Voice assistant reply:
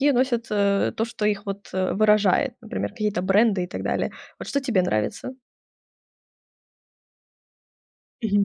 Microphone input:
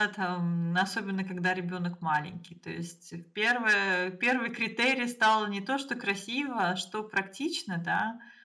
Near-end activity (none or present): present